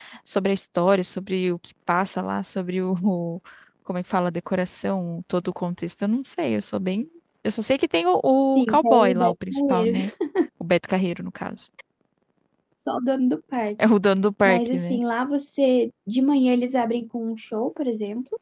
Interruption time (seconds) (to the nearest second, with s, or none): 9 s